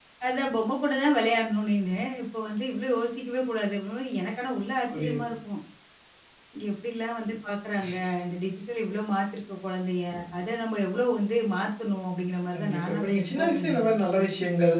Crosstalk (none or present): present